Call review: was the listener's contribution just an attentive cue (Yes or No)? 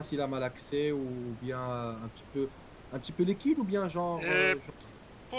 No